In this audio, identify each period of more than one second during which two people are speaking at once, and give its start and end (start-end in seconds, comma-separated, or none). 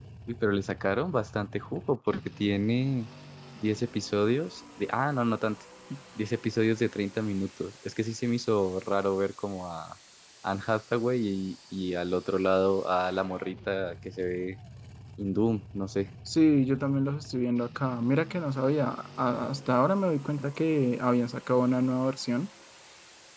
none